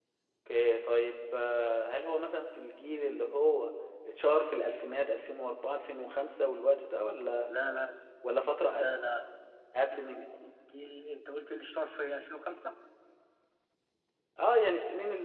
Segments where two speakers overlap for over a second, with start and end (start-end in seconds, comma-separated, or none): none